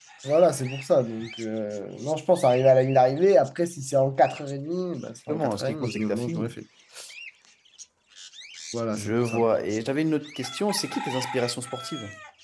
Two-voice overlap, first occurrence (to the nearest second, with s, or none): 5 s